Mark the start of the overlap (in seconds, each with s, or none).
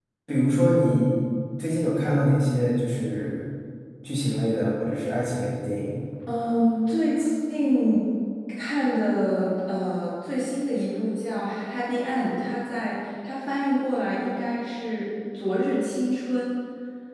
none